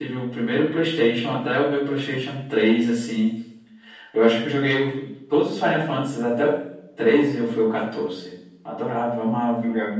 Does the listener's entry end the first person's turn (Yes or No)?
Yes